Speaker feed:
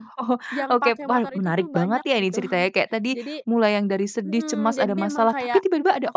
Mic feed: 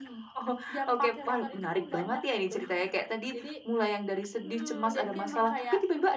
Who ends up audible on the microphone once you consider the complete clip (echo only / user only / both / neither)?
echo only